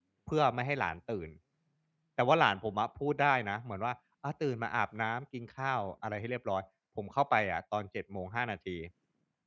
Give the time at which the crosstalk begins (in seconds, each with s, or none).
none